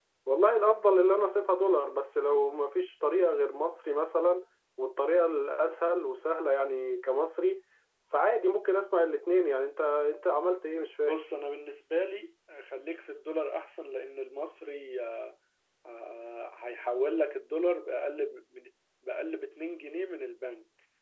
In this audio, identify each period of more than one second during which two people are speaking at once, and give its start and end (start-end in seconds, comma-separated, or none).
none